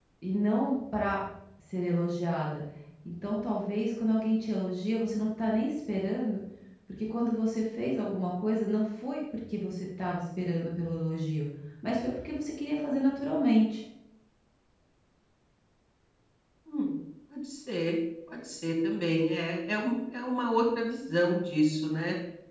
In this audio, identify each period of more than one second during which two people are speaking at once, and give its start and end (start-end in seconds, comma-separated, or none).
none